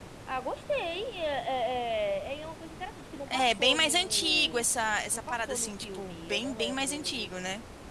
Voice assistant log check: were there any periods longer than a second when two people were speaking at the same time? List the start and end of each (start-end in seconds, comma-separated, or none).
3.3-4.6, 5.1-7.1